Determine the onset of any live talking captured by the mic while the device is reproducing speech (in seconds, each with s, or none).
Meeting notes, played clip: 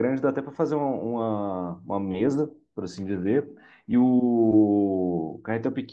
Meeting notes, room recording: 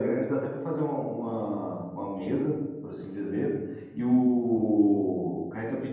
none